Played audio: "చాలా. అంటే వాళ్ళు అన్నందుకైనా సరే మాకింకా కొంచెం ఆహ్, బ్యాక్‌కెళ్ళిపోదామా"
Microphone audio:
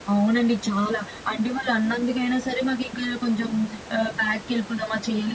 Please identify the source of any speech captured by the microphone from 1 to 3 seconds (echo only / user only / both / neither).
echo only